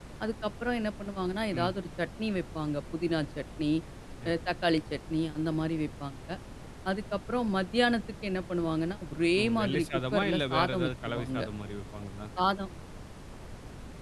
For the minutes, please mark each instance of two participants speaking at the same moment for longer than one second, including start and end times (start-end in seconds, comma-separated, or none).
9.4-11.4